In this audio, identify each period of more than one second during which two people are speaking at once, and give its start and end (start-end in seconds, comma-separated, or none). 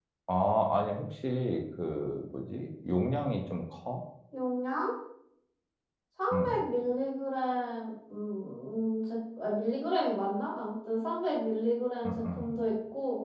none